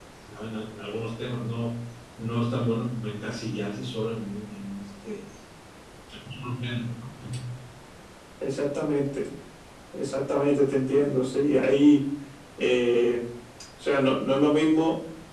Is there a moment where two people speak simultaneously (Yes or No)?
No